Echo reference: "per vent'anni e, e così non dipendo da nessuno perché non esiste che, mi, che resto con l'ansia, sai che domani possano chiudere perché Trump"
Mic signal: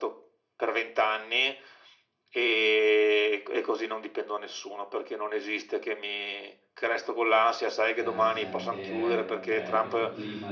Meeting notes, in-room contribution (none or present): present